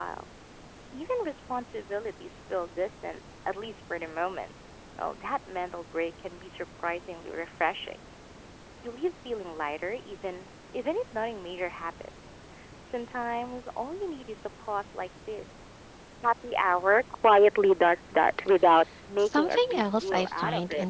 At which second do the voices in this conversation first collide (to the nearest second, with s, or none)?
19 s